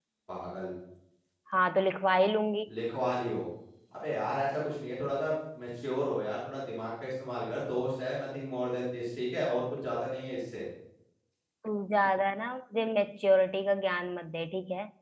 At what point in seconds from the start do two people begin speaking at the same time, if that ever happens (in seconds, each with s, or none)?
none